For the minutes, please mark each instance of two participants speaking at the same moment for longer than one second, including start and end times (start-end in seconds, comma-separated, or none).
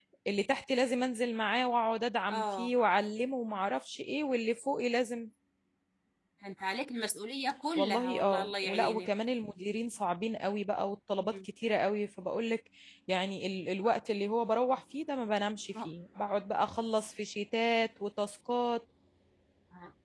7.8-9.1